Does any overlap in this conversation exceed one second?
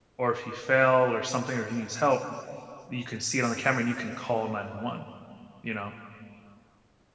No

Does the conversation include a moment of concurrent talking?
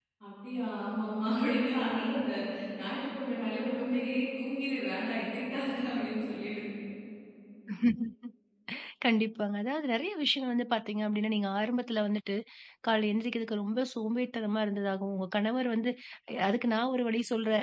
No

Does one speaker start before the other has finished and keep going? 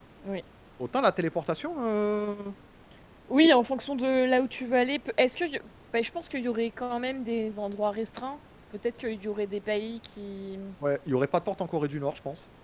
No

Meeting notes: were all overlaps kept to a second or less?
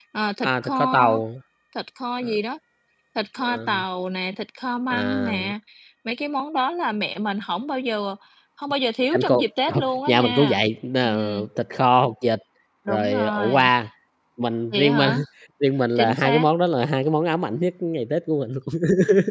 No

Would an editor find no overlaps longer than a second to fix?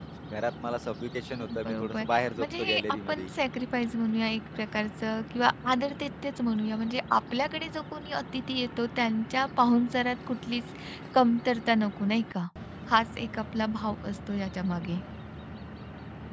No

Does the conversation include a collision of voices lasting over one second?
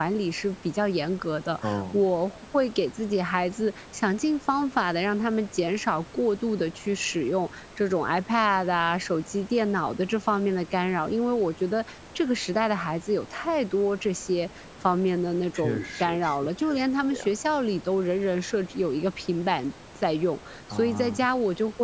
Yes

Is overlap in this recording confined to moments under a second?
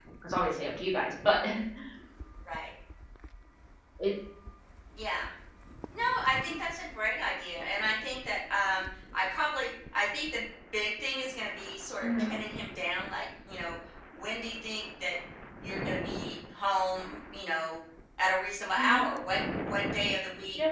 Yes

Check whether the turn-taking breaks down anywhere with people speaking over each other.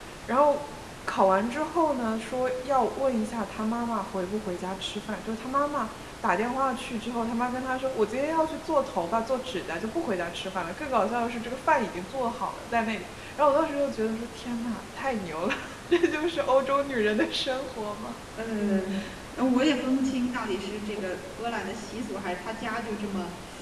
No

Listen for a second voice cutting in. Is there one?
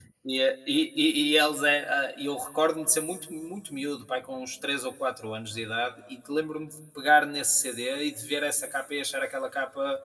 No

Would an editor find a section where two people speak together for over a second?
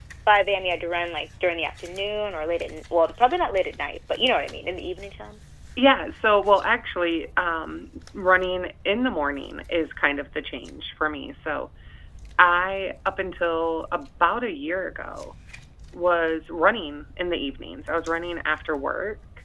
No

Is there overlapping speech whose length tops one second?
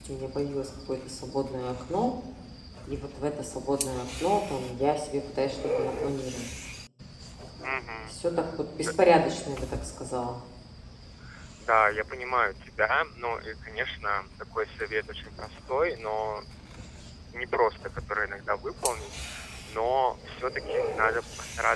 No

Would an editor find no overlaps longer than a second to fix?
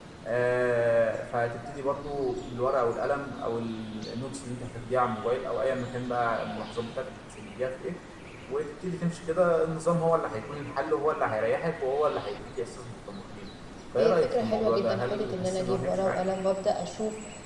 No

